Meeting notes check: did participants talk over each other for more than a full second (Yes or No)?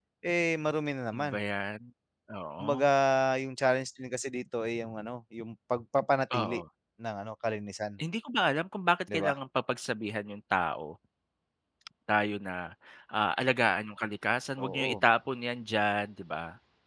No